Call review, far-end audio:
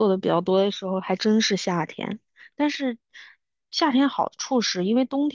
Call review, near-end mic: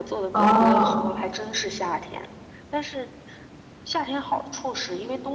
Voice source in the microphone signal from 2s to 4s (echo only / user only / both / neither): echo only